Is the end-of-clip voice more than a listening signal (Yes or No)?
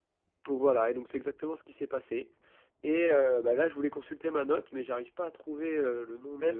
Yes